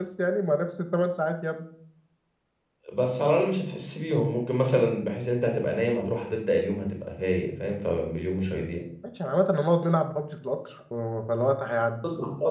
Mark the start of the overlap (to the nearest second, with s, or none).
none